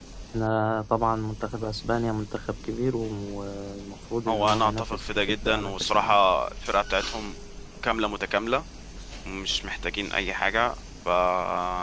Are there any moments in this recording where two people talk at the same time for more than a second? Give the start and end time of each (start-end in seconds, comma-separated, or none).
4.3-6.2